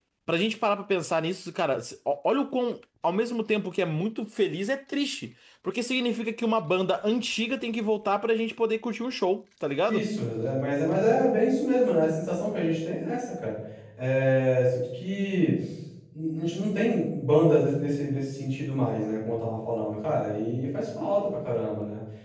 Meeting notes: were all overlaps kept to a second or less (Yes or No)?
Yes